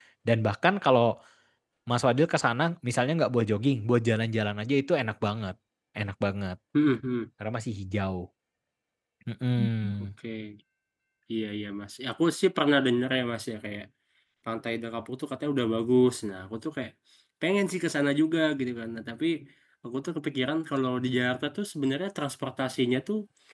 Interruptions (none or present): none